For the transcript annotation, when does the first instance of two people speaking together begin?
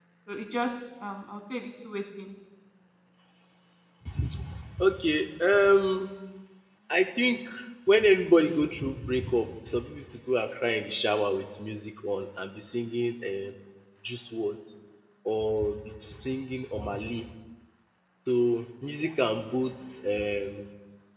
none

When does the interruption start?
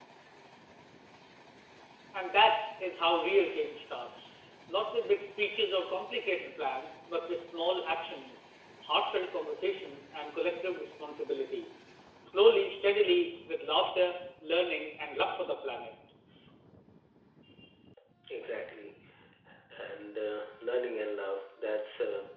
none

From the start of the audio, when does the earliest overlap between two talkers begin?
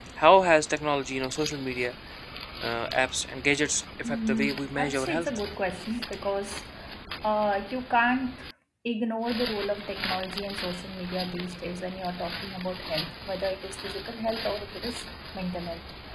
4.0 s

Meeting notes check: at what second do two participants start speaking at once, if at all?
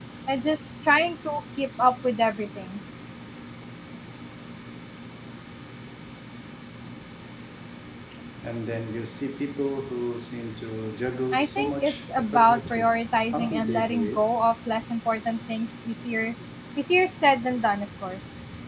11.3 s

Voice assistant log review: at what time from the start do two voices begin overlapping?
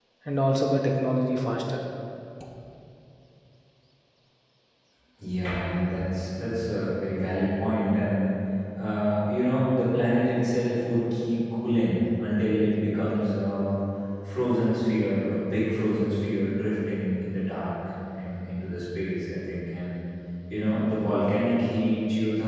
none

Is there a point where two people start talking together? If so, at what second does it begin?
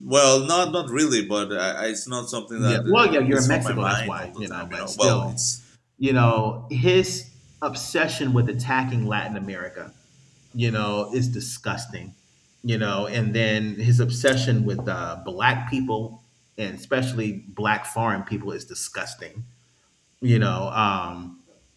2.6 s

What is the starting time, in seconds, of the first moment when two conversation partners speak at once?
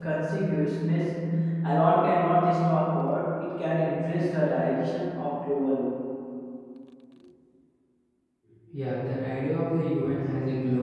none

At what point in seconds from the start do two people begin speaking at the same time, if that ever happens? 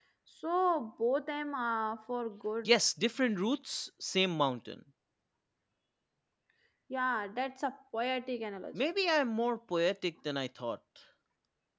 none

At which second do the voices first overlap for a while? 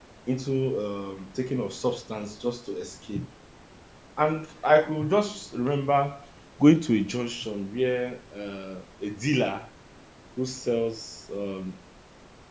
none

